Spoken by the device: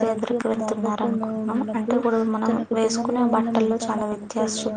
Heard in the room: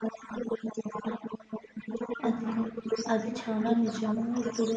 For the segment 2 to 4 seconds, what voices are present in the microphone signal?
both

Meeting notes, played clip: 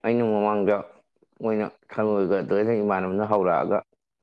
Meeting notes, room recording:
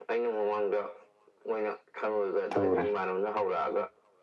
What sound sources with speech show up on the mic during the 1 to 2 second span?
echo only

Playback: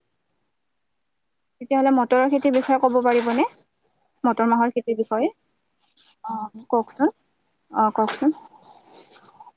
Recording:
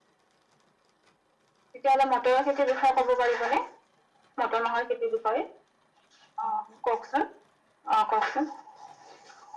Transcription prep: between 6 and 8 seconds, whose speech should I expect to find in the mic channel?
echo only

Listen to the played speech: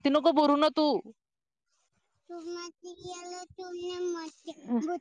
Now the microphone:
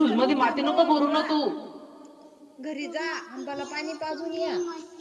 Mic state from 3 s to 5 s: both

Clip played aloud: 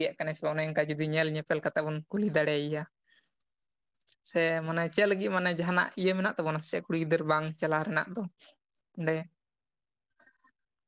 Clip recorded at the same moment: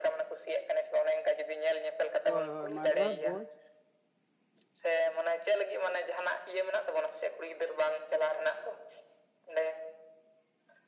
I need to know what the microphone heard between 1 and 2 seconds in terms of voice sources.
echo only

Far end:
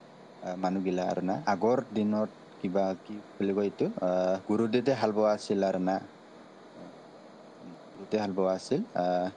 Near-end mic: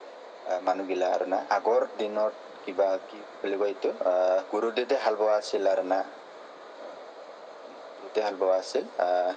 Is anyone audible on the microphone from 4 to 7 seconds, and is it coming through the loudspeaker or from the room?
echo only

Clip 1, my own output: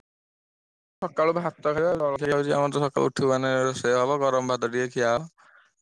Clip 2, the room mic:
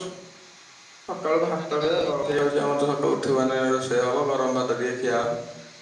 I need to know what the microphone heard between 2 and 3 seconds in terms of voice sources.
both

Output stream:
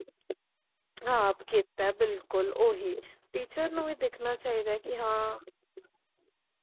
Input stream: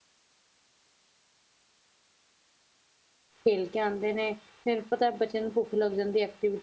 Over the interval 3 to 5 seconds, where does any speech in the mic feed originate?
user only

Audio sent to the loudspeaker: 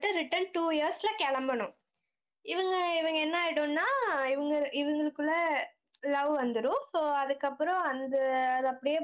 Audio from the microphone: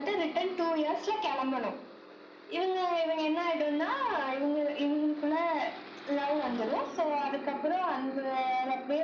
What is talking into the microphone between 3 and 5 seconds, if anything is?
echo only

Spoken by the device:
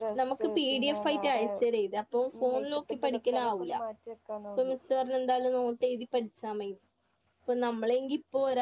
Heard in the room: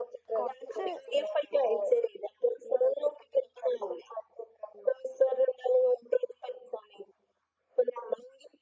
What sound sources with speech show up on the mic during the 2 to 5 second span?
echo only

